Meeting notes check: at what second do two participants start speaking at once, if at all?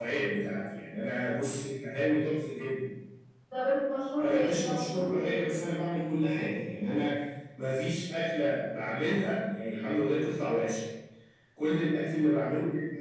4.2 s

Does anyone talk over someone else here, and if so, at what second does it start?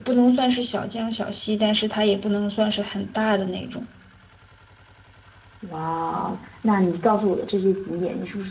none

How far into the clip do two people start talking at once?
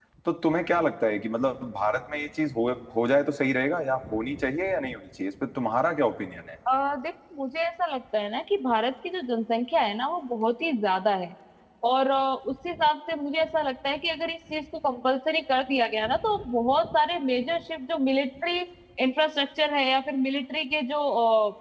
none

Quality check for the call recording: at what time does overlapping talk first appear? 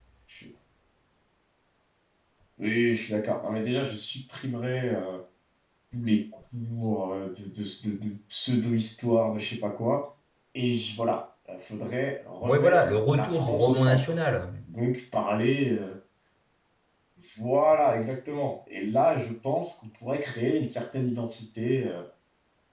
12.4 s

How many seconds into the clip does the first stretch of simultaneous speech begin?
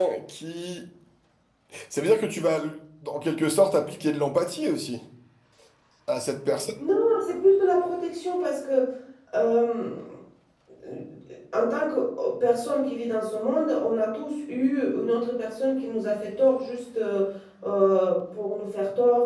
none

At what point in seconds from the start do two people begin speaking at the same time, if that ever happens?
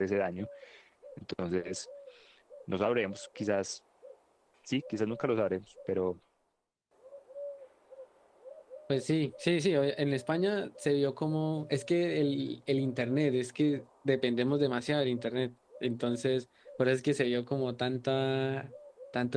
none

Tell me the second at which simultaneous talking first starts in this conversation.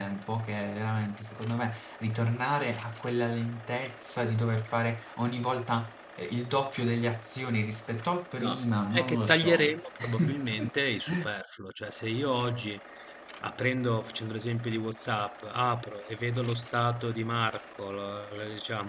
8.4 s

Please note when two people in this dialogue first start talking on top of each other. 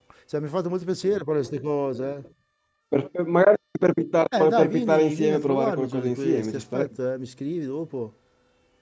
4.3 s

